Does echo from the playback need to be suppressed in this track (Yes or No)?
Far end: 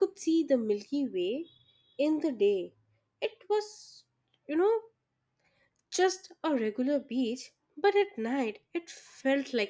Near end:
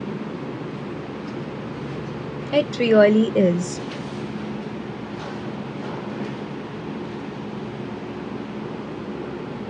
No